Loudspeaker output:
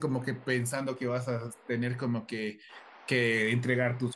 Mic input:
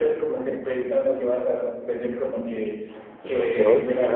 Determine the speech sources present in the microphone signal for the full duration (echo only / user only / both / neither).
both